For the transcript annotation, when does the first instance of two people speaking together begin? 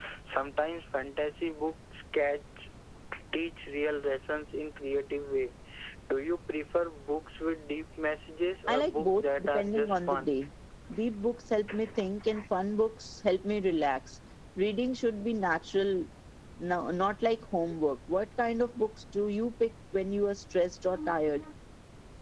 8.7 s

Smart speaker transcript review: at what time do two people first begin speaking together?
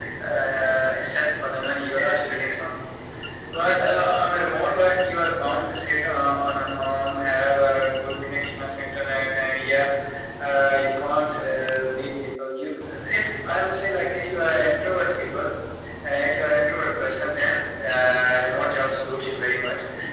none

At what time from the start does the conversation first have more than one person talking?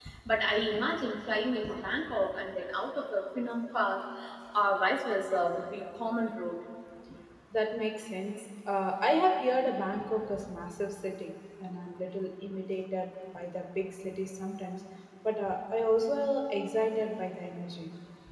none

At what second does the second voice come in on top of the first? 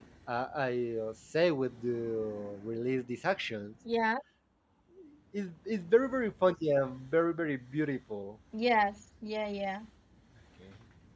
none

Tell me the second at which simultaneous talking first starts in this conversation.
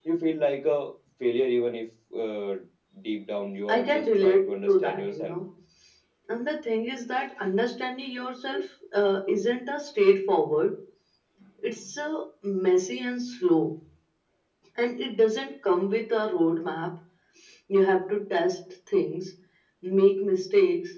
3.7 s

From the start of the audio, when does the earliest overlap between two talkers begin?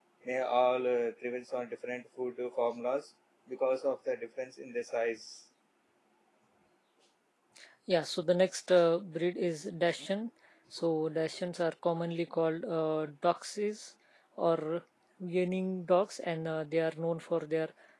none

